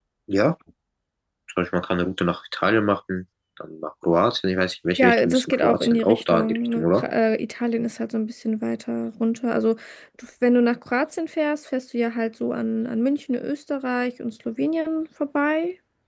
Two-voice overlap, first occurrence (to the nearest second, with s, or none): 5 s